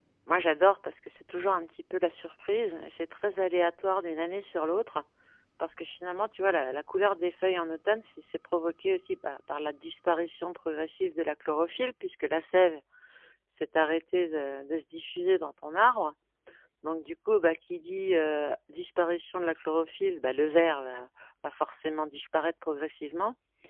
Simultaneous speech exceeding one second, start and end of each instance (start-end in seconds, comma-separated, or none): none